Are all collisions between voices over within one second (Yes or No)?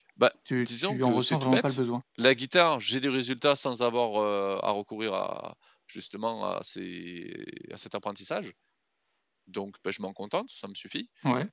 No